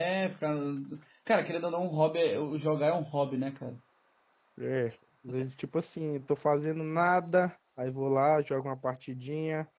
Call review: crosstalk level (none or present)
none